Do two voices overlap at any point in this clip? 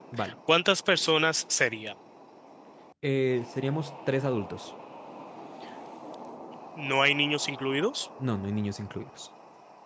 No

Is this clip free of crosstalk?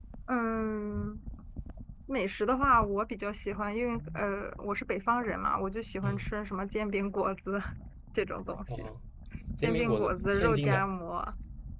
No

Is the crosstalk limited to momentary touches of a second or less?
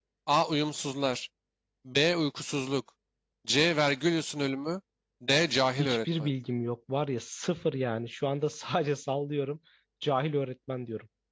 Yes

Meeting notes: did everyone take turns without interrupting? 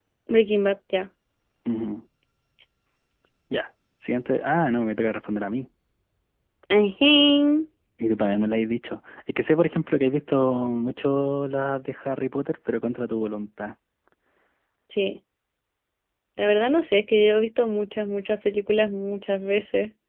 Yes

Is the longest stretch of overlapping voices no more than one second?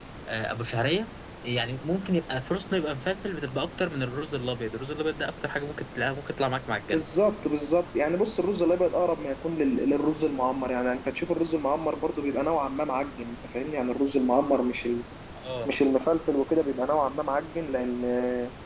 Yes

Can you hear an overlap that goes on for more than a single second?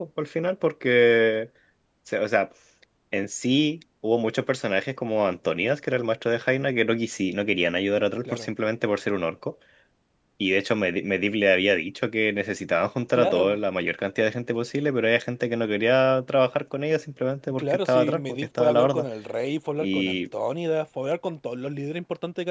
Yes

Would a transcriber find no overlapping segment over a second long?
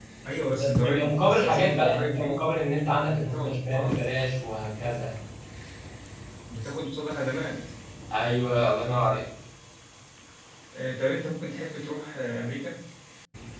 No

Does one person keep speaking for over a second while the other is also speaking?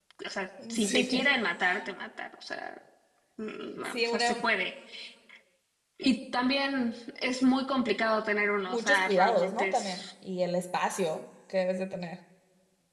Yes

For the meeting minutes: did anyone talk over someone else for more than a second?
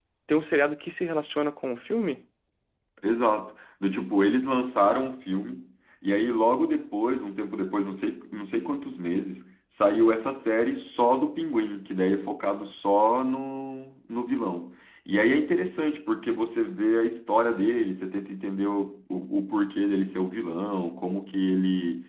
No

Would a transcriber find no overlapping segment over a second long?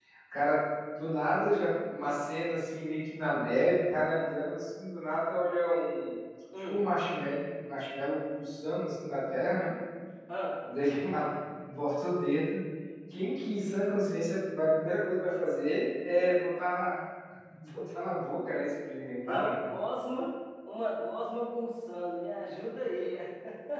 Yes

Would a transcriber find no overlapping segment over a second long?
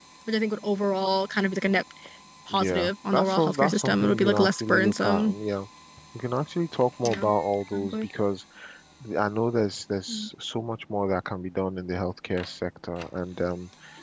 No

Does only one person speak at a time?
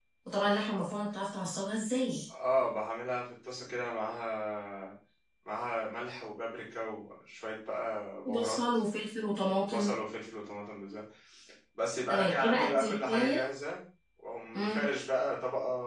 No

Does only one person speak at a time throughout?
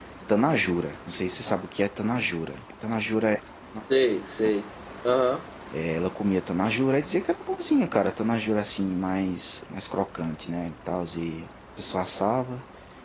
Yes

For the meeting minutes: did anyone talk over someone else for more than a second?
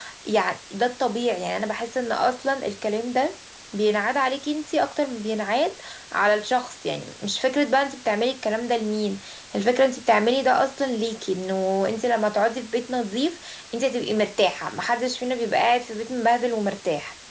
No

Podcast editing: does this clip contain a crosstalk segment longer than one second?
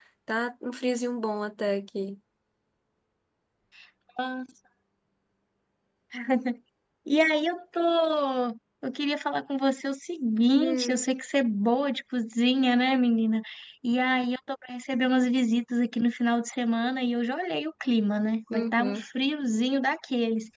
No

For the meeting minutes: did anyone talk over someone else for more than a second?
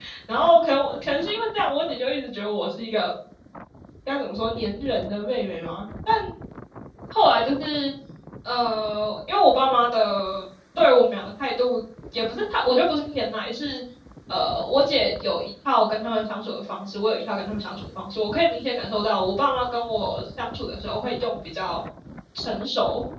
No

